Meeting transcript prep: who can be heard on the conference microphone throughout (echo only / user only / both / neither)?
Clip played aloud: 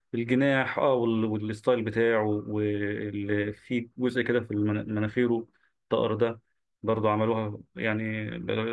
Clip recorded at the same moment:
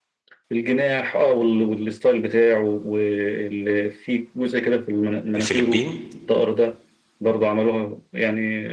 both